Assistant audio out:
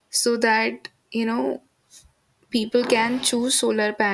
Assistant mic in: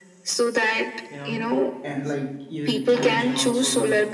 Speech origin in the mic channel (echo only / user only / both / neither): both